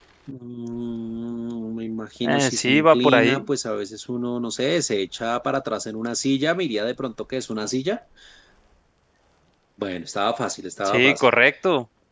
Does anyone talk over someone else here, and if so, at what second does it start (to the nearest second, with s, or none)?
2 s